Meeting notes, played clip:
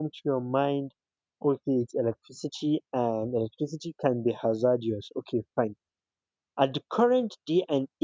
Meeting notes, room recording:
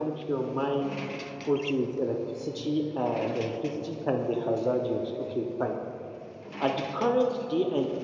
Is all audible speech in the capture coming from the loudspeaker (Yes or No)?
Yes